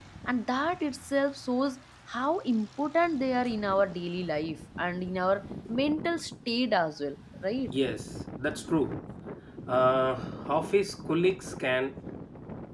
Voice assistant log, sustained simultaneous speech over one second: none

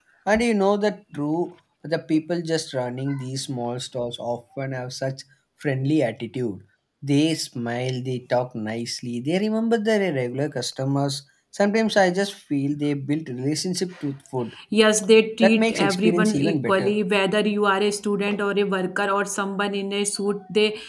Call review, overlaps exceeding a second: present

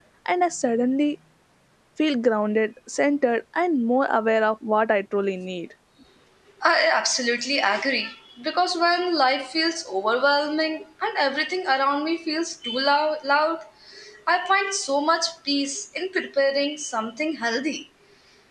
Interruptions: none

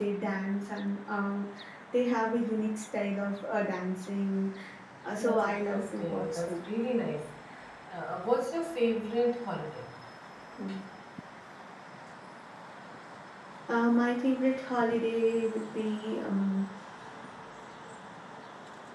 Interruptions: present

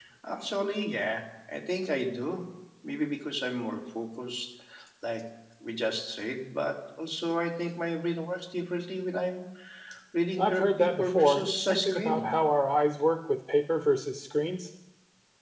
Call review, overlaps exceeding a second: present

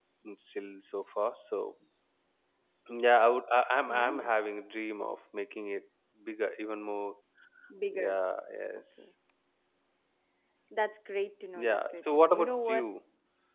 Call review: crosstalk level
present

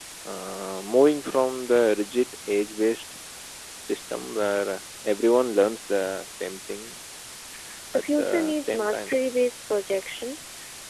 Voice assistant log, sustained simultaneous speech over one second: present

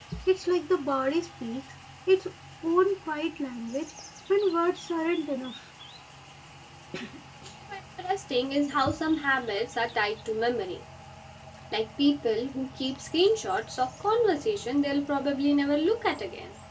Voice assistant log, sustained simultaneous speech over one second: none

